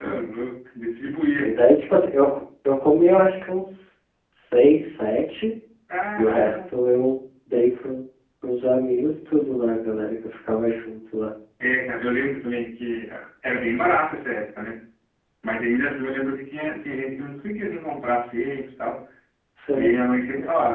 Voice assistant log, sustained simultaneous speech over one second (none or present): none